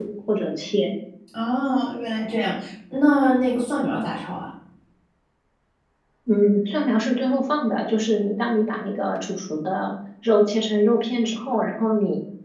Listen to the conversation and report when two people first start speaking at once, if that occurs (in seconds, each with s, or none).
none